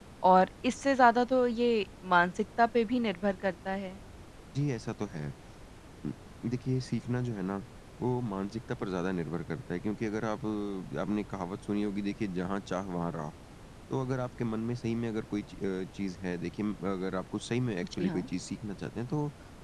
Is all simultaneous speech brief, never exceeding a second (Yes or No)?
Yes